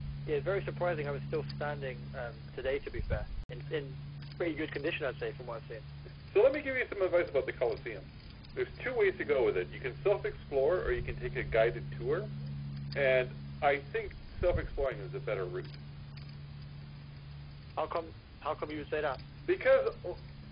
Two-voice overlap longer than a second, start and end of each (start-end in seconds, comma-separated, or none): none